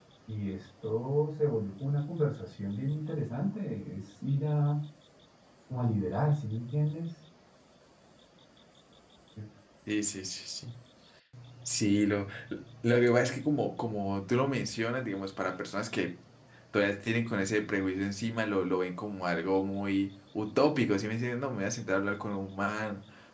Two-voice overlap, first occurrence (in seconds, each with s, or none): none